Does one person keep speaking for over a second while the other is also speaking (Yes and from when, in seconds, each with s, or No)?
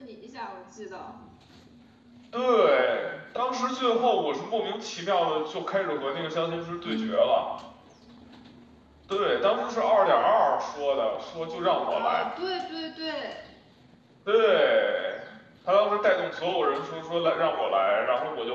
No